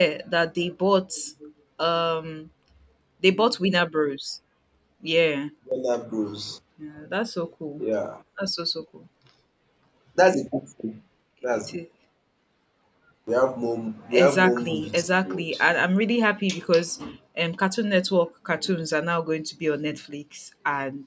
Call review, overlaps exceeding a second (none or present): present